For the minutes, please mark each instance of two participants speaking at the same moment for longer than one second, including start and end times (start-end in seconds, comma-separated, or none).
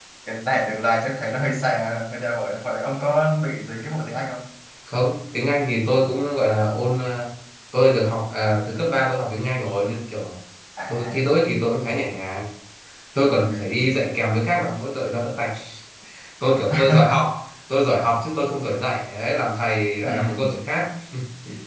none